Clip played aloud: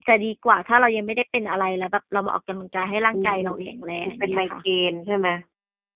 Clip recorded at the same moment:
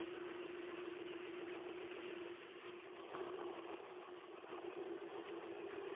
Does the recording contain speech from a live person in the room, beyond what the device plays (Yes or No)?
No